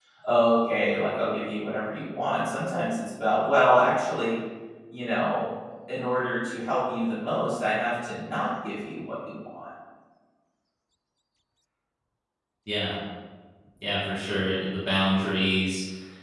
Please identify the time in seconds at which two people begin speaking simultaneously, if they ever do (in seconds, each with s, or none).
none